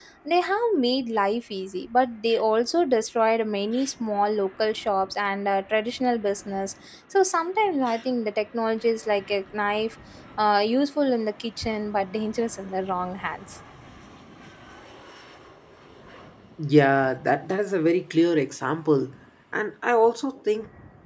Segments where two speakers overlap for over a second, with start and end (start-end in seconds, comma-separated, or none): none